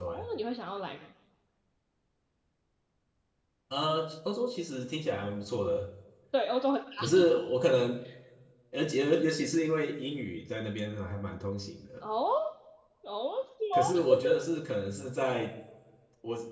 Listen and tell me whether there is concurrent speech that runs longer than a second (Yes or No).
No